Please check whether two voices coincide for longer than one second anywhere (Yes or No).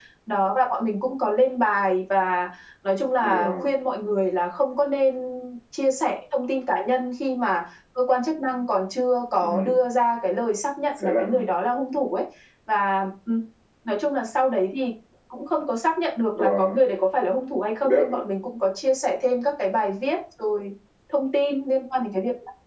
No